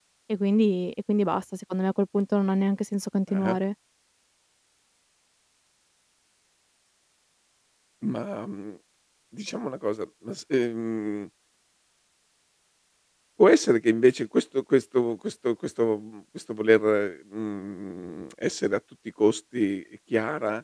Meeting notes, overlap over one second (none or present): none